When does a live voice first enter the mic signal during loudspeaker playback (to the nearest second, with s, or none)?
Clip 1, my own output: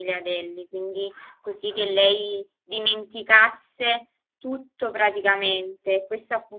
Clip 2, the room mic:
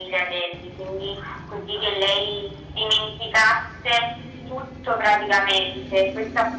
none